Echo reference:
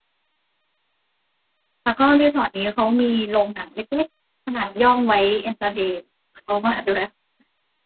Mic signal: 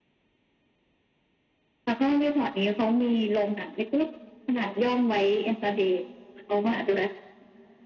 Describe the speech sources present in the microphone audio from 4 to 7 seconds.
echo only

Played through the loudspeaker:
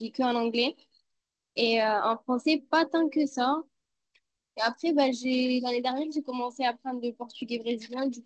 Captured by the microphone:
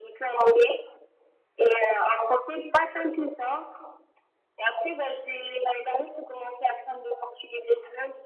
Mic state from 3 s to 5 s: echo only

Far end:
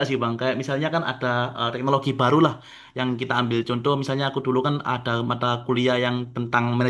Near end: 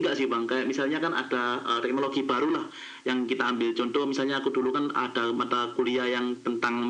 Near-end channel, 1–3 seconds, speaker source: echo only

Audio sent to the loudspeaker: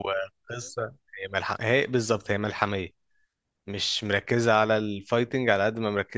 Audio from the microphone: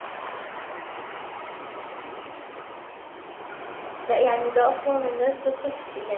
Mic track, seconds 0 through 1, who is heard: neither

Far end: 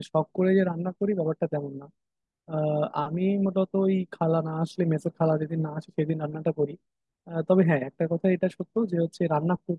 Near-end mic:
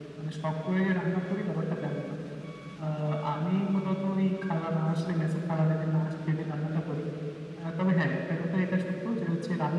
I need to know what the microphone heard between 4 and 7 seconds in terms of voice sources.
echo only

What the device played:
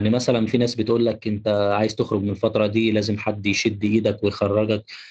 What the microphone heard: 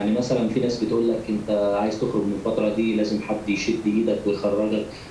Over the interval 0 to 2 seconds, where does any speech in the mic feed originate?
echo only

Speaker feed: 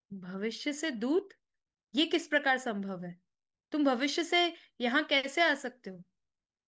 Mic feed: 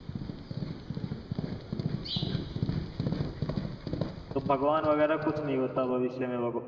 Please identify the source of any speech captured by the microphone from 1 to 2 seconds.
neither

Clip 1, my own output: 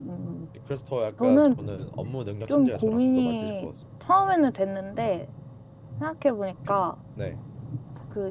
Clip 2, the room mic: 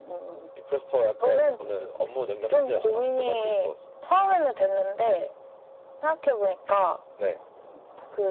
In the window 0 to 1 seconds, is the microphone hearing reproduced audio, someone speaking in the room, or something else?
echo only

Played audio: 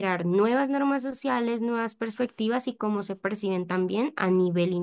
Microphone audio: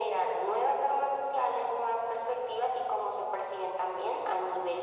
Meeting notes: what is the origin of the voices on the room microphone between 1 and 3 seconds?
echo only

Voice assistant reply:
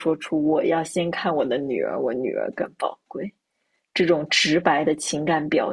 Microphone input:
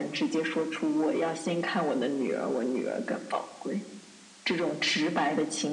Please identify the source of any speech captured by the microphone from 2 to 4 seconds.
echo only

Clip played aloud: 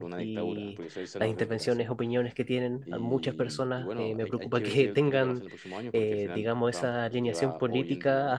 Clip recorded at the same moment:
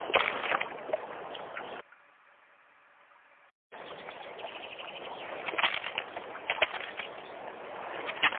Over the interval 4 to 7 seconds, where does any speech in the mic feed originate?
neither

